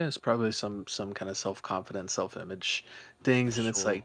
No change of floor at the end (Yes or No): Yes